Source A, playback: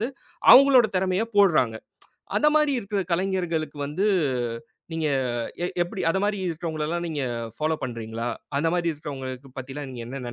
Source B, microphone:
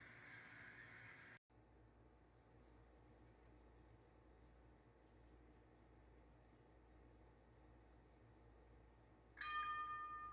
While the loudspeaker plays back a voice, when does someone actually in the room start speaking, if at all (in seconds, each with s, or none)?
none